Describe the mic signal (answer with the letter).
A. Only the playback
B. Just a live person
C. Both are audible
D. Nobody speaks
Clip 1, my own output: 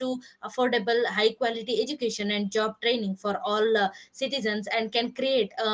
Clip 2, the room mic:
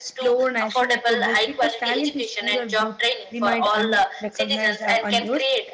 C